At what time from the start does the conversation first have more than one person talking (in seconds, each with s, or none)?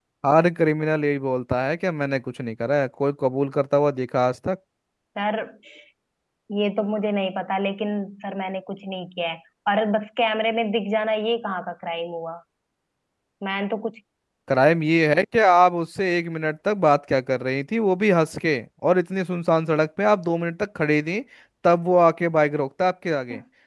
none